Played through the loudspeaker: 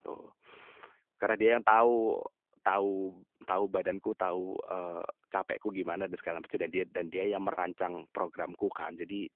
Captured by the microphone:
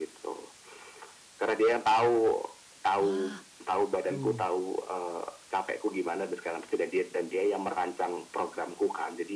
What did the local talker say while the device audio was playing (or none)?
Wah, aduh.